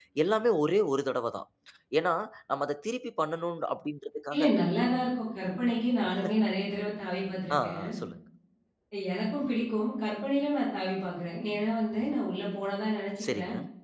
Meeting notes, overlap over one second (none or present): none